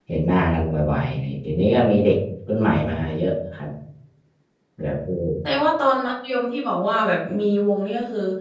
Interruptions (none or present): none